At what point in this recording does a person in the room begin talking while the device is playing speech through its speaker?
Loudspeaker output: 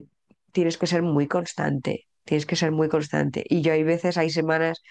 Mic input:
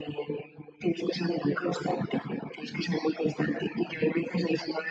none

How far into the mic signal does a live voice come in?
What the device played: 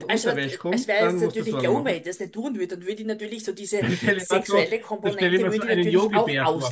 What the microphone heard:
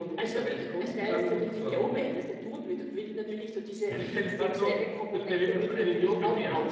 none

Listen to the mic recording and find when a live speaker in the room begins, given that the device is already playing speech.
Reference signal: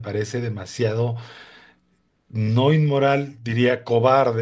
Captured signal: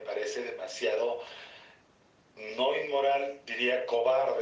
none

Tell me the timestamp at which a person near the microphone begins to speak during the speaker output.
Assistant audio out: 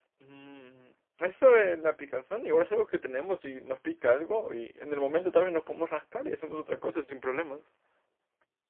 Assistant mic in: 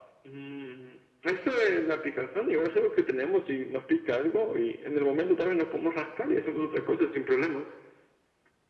none

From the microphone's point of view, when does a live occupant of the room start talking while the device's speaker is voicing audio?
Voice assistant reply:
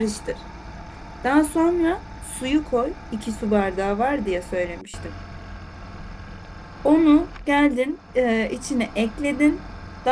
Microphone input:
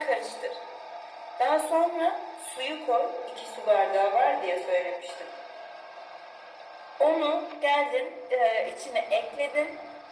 none

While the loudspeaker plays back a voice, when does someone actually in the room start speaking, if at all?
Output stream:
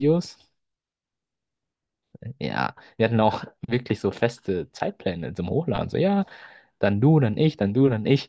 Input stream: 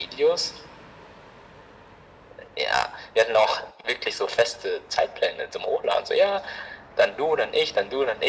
none

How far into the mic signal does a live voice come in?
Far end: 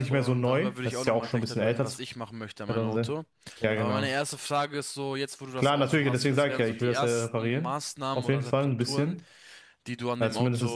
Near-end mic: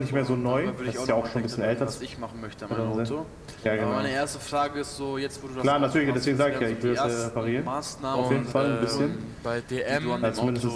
8 s

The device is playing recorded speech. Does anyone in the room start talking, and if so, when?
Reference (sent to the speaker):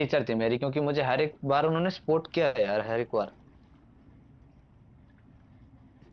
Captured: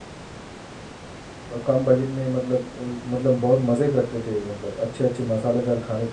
2 s

